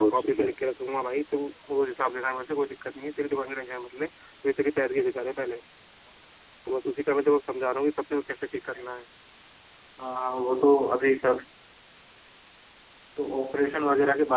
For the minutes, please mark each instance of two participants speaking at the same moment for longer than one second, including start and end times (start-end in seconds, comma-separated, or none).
none